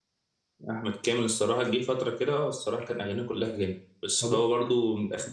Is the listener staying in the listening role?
Yes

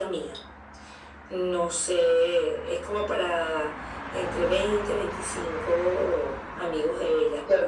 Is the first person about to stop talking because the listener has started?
Yes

